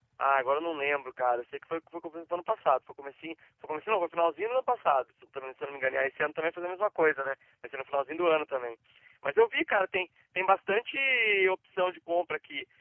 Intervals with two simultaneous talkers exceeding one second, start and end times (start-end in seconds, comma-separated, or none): none